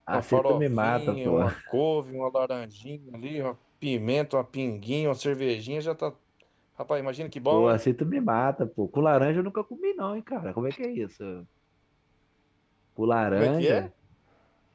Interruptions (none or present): present